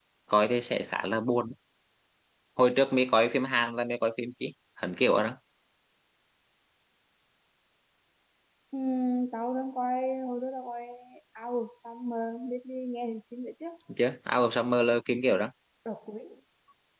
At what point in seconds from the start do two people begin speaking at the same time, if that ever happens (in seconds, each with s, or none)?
none